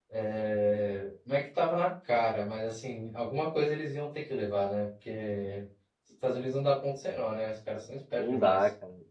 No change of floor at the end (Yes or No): No